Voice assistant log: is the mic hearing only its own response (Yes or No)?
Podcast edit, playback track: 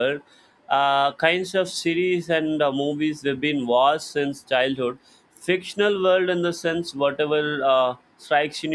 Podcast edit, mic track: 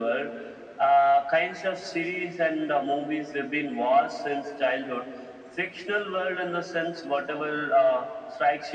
Yes